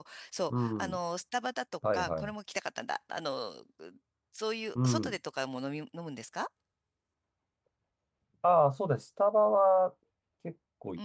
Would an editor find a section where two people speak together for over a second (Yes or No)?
No